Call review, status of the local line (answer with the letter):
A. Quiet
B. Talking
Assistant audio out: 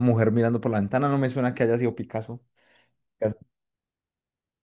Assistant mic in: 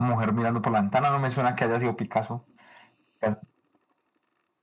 A